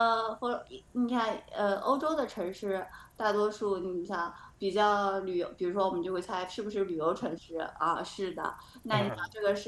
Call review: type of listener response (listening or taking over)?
listening